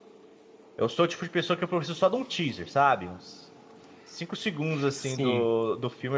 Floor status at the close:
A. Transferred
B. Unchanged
B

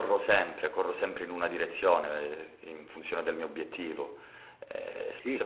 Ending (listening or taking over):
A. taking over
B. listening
B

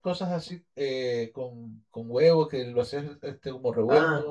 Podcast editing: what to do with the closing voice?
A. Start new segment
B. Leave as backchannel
A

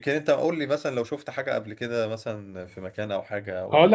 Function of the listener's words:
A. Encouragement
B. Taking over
B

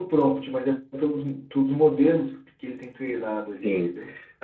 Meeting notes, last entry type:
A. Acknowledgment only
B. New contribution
B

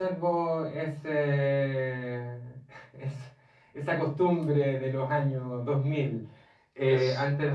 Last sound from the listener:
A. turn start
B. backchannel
B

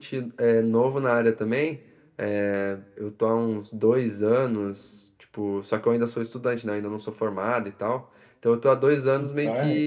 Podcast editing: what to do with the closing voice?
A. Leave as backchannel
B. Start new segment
A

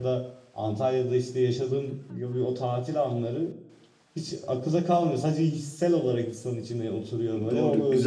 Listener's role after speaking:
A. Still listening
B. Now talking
B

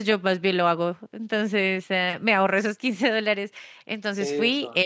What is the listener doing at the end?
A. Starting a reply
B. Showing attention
B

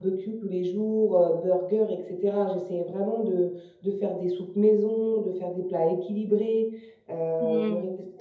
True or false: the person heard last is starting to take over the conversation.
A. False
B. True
B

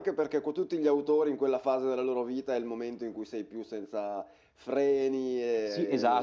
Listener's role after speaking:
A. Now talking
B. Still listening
A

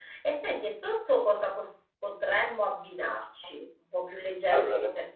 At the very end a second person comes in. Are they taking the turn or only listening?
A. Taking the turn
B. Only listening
B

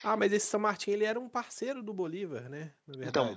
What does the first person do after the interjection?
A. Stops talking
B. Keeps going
A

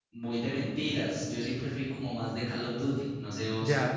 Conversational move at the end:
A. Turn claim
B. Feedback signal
A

